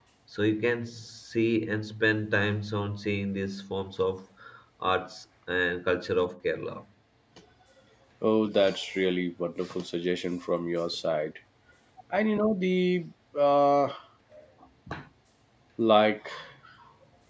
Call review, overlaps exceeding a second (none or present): none